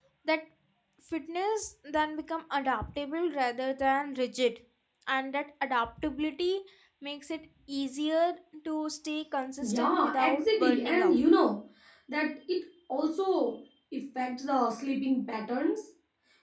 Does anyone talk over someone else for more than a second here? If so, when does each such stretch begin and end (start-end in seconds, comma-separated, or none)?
9.6-11.2